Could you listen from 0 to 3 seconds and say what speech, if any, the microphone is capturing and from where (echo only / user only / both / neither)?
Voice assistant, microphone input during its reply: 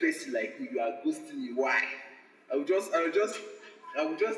echo only